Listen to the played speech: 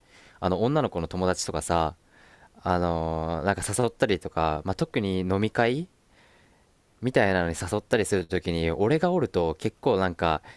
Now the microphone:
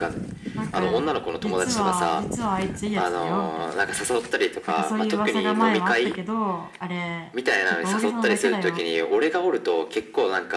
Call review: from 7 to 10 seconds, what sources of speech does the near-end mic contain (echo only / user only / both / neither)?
both